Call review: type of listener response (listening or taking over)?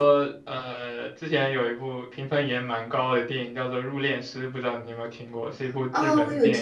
taking over